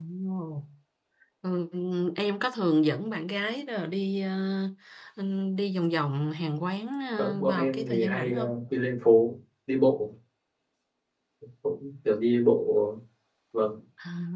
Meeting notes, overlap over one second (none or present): present